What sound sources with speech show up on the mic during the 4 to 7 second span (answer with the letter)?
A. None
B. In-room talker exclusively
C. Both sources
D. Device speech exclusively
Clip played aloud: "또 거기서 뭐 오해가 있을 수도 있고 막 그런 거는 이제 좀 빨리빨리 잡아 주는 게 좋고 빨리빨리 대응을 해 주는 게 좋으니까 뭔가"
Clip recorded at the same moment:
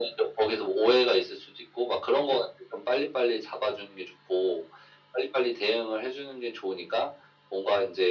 D